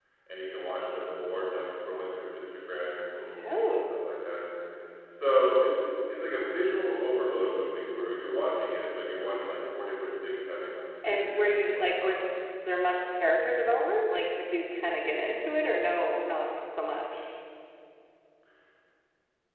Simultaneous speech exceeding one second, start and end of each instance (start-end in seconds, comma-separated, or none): 11.1-12.2